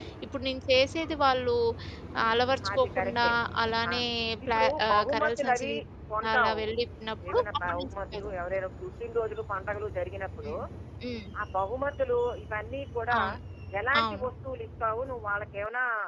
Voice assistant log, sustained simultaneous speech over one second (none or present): present